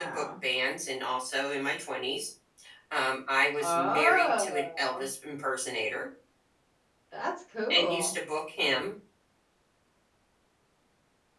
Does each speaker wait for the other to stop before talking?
No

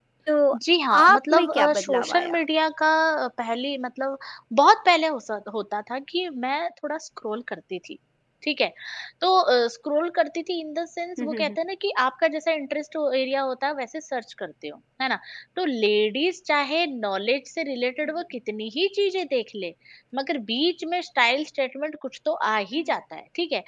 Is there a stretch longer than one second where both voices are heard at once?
Yes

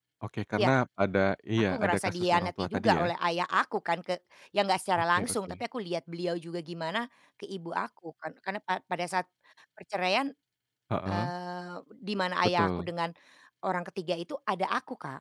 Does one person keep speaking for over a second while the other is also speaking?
Yes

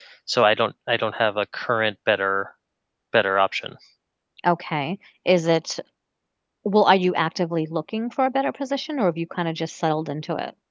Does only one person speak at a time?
Yes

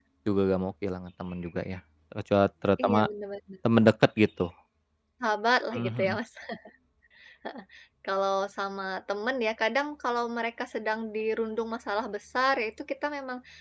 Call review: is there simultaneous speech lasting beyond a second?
No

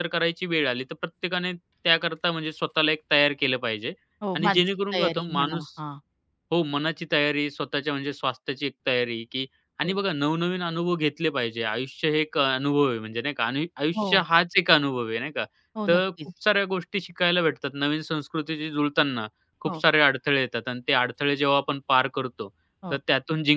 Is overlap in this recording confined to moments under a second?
No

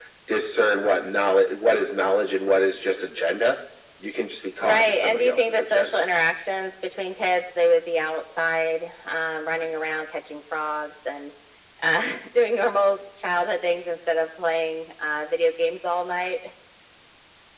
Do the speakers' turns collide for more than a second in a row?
Yes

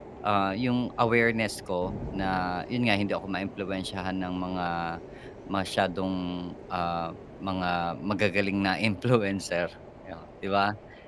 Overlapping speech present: No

